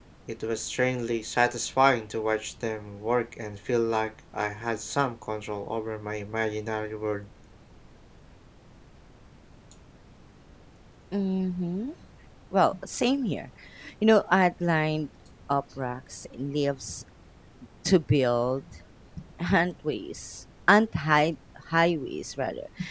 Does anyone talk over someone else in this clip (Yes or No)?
No